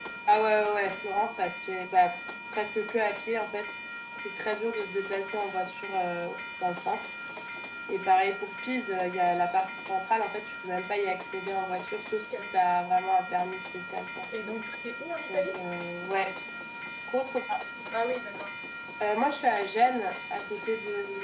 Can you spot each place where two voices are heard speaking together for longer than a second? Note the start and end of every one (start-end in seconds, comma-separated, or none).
none